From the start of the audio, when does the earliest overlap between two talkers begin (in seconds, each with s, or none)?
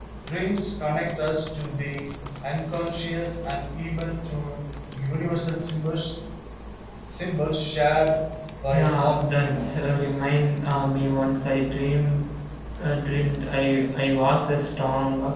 8.7 s